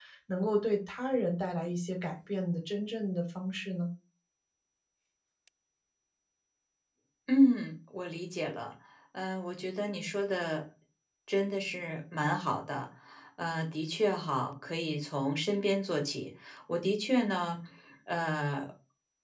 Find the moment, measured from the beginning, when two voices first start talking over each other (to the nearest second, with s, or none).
none